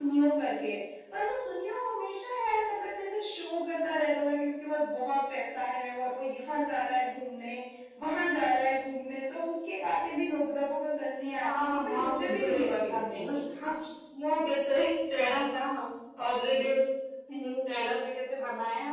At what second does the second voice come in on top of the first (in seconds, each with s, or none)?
11.4 s